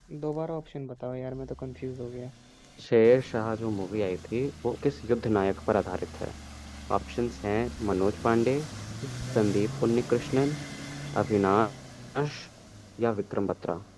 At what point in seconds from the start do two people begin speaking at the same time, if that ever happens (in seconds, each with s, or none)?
none